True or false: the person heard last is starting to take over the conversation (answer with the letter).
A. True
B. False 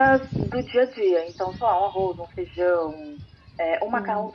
B